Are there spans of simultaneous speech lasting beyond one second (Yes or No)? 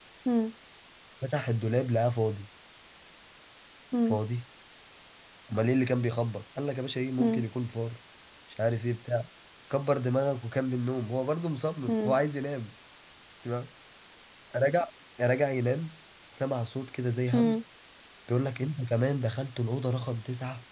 No